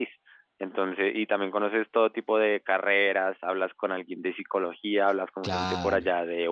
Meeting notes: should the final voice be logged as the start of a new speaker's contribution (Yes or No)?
No